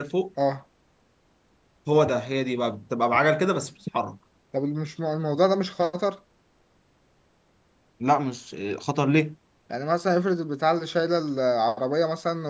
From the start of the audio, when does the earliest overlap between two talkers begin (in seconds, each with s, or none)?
none